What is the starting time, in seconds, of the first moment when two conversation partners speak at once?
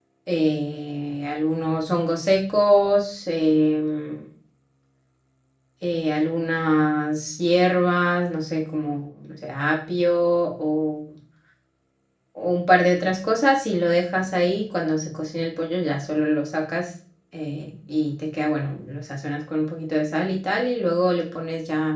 none

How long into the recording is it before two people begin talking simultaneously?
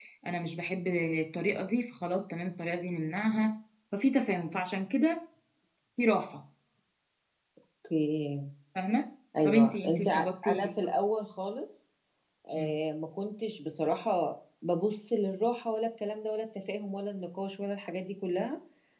9.4 s

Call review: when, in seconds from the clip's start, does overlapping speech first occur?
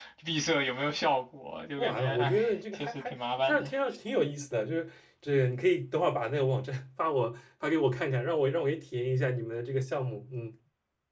1.8 s

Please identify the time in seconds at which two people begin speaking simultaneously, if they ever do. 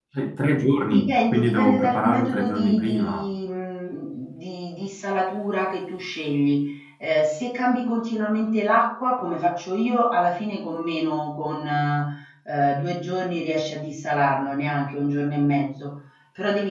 0.8 s

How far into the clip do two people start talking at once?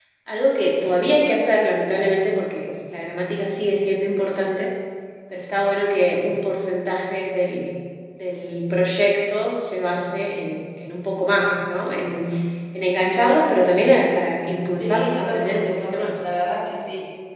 14.7 s

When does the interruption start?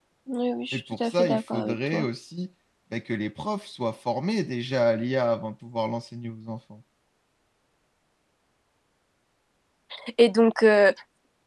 0.7 s

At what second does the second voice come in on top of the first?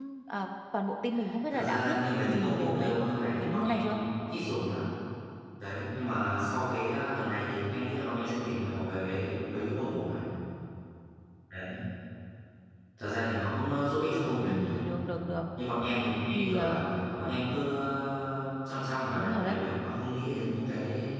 1.5 s

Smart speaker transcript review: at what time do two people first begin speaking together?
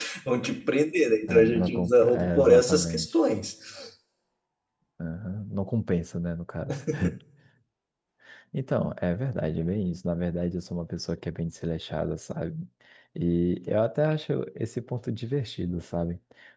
1.3 s

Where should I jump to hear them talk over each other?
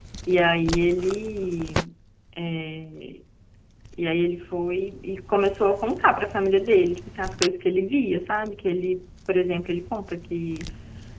none

